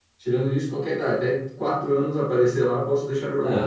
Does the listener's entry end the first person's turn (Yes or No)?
Yes